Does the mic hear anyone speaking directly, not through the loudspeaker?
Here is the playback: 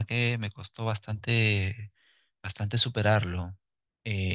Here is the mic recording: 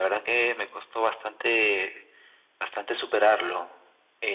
No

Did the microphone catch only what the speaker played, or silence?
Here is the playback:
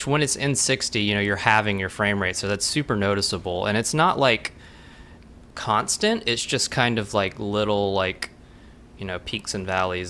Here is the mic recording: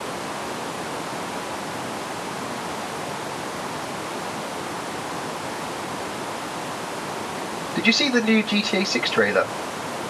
No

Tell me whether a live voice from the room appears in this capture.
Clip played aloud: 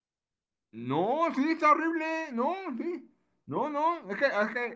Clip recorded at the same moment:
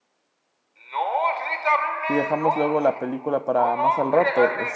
Yes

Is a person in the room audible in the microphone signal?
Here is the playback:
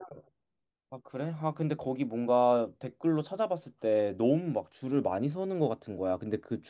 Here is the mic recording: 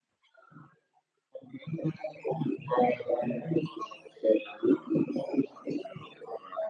No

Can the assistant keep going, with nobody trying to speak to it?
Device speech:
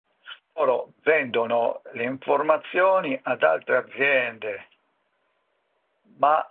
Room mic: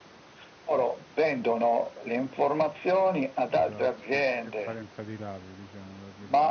No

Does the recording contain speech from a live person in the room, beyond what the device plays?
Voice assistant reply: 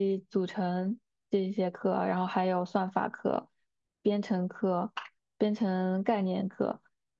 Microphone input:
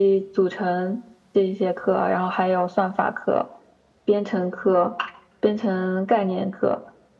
No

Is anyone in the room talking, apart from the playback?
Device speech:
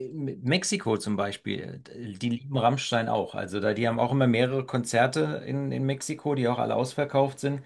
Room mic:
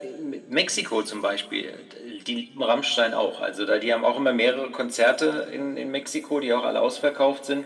No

